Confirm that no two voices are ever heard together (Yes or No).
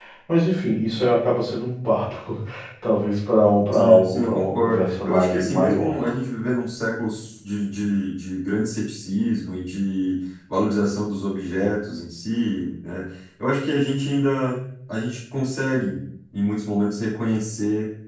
No